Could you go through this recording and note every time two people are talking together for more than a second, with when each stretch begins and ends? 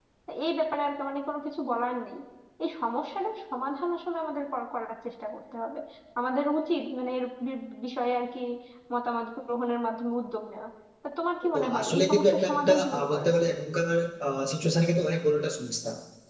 11.5-13.5

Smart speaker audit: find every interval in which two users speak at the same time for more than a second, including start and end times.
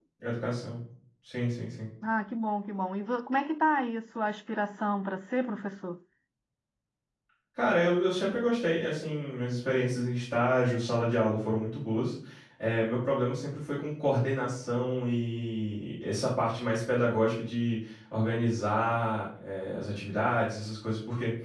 none

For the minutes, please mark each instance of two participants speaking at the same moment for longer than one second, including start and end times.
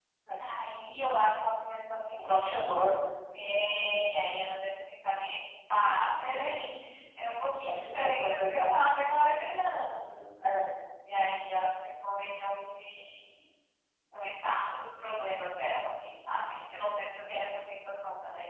7.5-8.7

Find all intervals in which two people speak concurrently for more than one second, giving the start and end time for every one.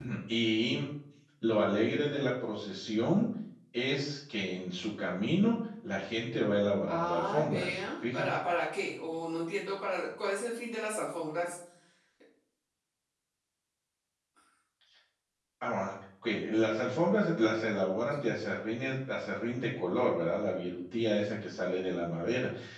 6.9-8.2

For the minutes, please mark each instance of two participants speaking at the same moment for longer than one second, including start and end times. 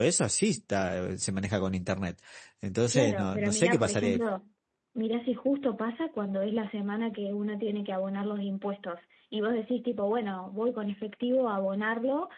2.9-4.2

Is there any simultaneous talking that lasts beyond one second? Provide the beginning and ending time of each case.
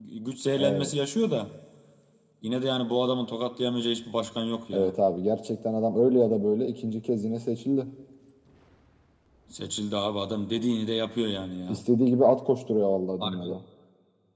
none

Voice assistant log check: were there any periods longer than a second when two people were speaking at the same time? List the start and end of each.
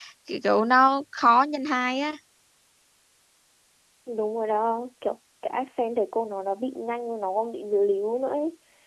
none

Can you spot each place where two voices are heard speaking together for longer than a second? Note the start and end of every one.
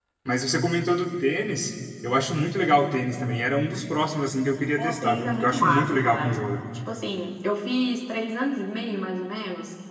4.8-6.3

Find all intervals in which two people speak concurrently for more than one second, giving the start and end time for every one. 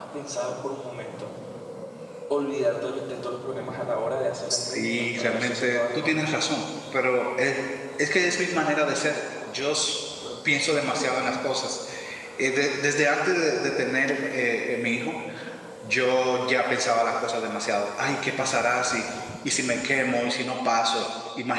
4.5-6.2

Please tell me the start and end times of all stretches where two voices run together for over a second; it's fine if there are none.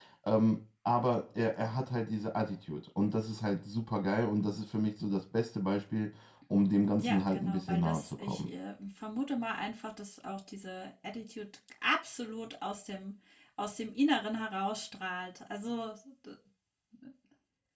7.0-8.5

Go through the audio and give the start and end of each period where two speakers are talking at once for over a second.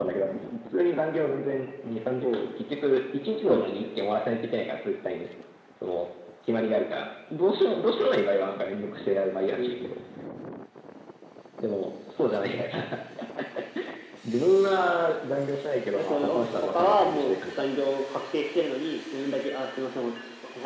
15.9-17.6

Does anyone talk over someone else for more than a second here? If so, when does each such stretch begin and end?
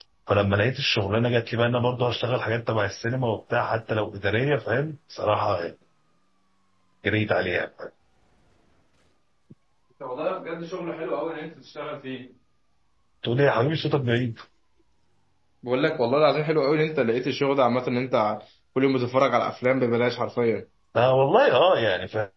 none

